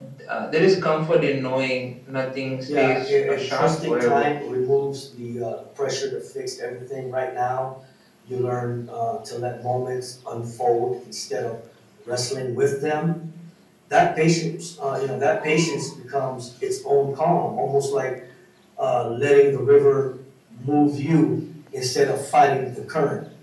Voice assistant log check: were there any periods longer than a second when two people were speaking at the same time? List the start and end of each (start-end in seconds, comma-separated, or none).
2.8-4.2